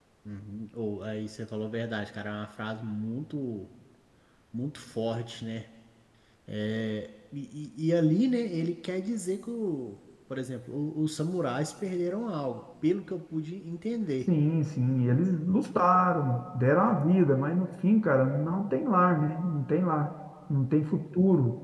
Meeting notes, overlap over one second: none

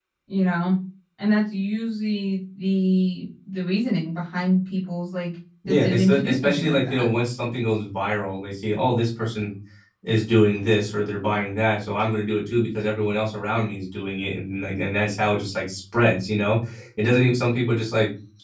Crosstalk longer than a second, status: present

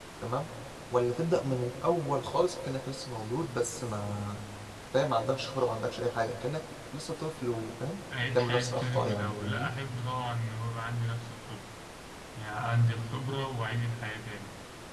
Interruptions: present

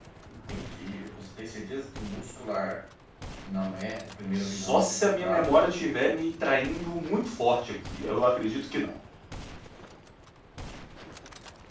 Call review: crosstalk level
present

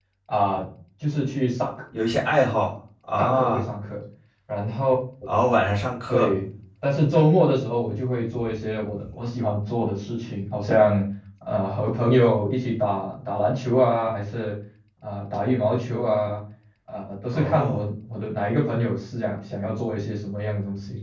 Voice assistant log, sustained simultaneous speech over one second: none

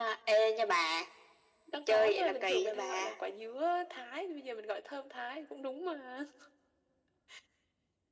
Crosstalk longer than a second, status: present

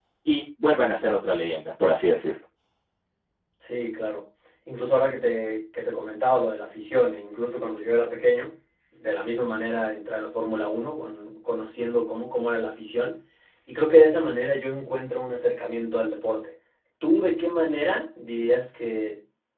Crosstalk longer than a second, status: none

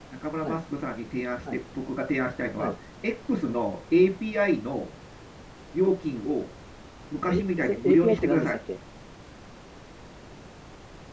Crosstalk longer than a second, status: present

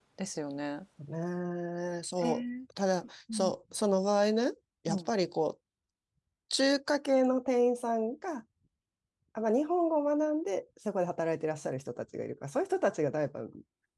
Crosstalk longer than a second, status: none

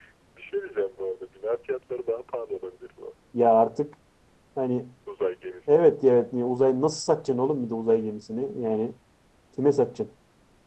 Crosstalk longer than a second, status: none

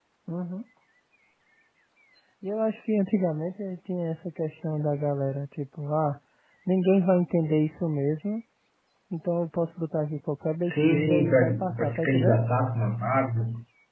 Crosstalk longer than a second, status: present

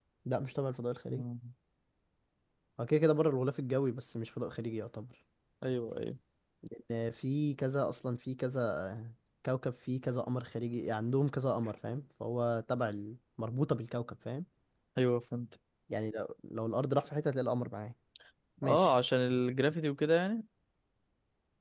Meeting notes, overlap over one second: none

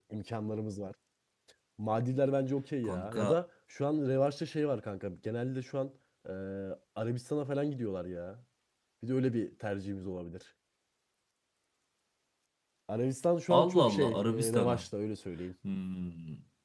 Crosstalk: present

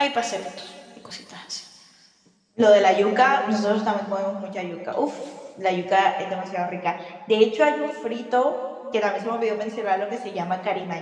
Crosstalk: none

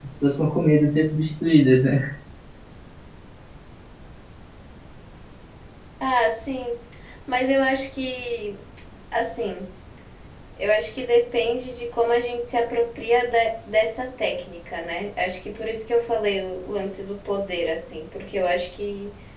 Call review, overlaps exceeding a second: none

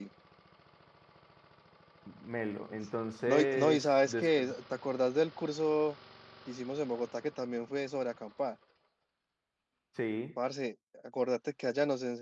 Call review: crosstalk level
present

